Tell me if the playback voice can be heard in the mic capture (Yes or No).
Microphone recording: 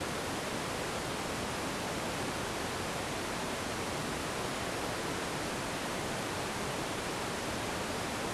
No